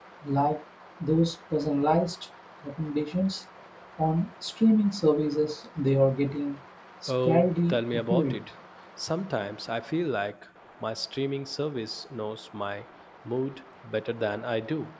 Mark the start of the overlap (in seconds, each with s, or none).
7.1 s